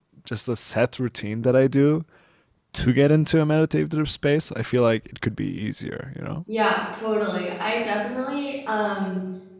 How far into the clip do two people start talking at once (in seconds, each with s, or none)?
none